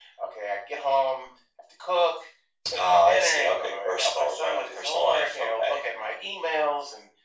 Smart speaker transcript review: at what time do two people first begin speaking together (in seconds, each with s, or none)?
2.8 s